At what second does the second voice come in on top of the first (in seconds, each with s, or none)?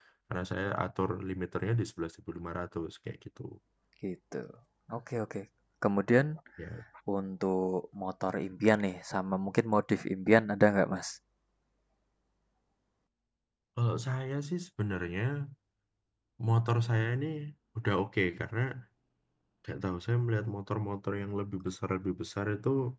none